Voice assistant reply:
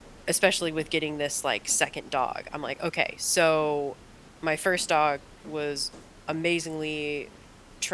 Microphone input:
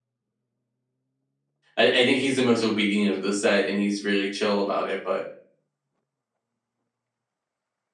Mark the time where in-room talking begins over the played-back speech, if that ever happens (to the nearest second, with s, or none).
2 s